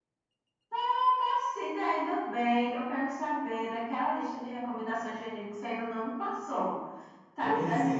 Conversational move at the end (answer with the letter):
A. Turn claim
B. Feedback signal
A